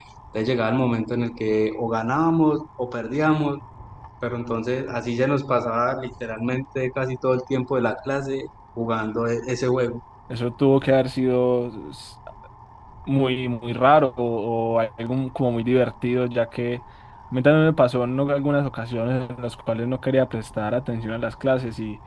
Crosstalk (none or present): none